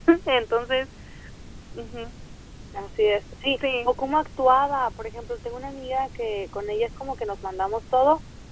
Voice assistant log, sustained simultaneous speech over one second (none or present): none